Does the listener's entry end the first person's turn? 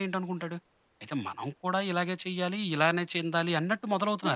Yes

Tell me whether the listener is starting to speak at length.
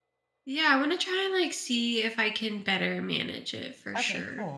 Yes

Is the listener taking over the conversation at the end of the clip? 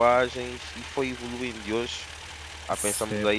Yes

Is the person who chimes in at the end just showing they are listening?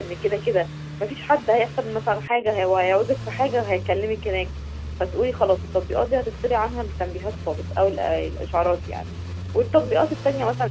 Yes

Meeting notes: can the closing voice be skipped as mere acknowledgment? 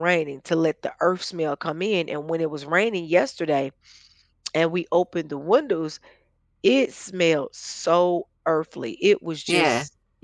Yes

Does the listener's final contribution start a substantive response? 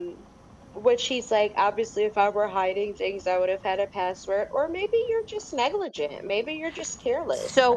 Yes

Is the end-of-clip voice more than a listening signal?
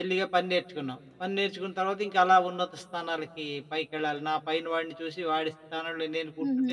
Yes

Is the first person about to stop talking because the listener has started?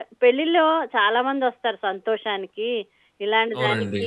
No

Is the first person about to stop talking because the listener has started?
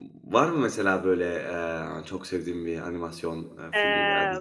Yes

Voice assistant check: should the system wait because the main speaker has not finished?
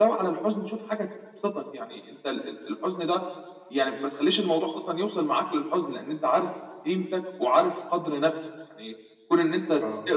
Yes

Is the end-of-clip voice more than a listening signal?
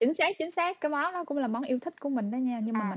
Yes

